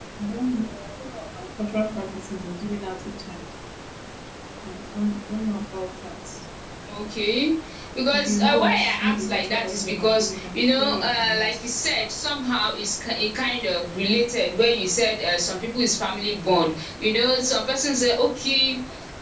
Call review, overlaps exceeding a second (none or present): present